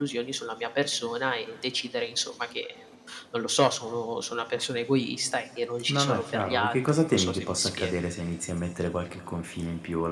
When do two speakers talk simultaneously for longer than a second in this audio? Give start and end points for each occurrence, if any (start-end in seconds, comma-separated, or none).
5.9-7.9